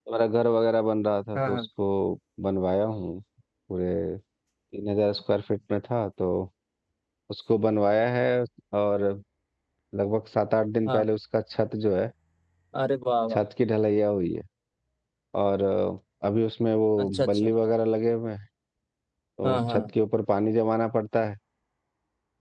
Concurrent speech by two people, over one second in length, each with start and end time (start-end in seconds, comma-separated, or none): none